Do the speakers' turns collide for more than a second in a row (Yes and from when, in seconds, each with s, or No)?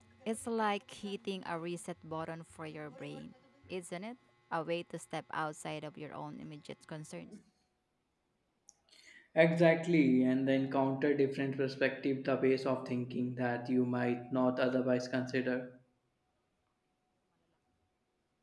No